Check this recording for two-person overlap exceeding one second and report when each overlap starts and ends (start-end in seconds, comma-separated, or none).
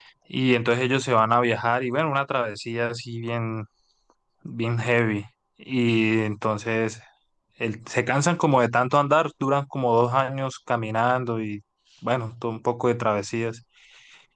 none